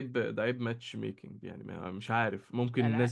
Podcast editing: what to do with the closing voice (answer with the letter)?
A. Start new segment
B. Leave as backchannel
B